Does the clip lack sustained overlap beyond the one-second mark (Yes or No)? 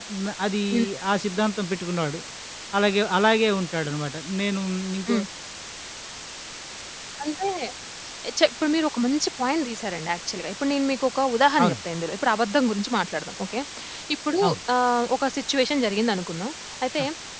Yes